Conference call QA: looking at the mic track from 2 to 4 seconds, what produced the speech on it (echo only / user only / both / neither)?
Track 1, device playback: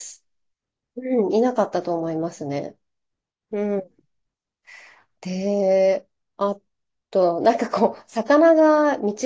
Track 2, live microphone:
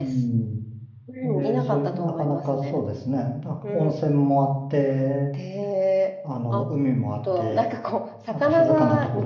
both